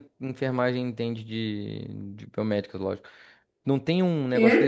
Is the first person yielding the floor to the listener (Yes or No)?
No